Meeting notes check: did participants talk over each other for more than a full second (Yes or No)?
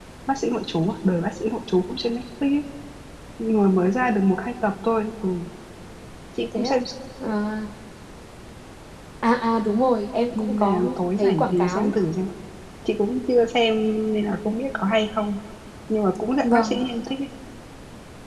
Yes